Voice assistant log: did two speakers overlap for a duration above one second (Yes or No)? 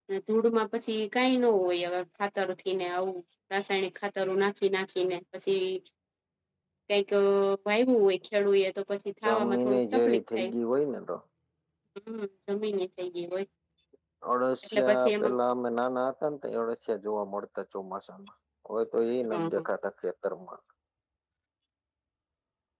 Yes